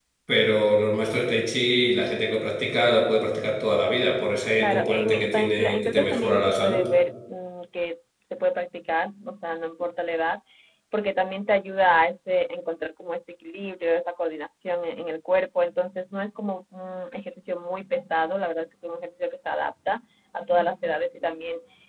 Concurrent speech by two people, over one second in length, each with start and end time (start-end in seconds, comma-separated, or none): 4.6-6.8